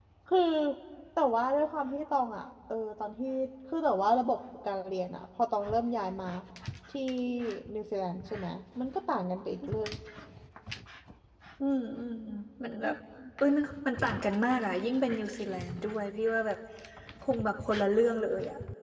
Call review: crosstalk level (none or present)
none